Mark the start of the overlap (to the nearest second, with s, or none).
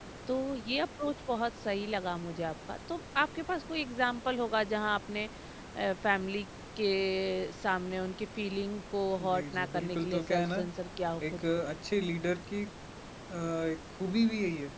9 s